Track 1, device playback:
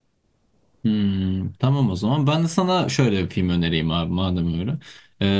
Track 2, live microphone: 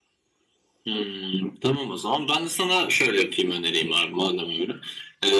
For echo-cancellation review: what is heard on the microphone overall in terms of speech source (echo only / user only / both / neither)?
echo only